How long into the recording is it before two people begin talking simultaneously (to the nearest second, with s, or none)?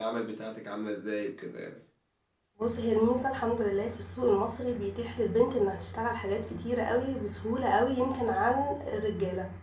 none